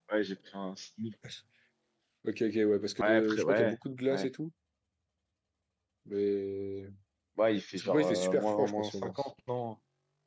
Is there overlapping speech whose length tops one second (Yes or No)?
Yes